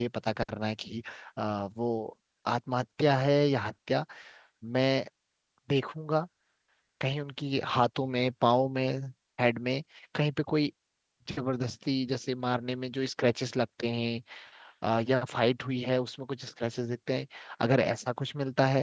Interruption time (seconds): none

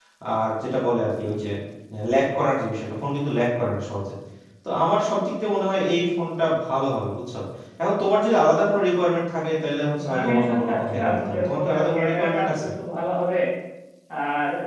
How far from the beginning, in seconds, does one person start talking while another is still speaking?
9.9 s

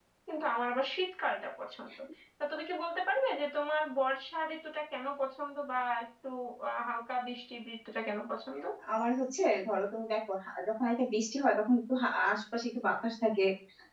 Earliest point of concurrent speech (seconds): none

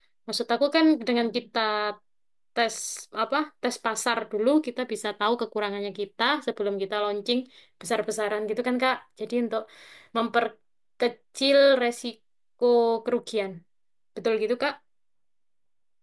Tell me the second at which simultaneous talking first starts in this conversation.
none

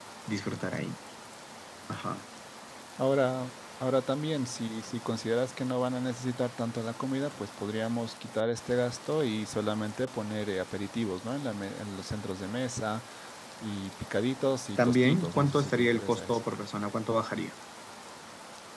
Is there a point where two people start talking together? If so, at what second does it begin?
14.8 s

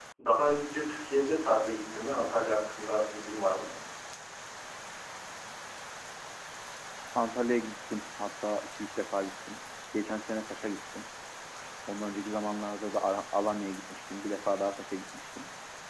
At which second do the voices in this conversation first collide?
none

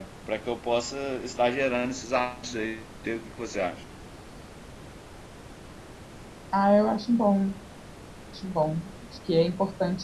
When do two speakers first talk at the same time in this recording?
none

